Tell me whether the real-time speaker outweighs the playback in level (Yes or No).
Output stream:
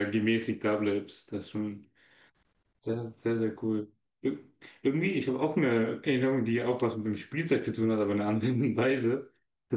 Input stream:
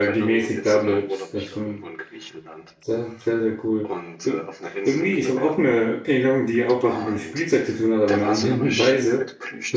No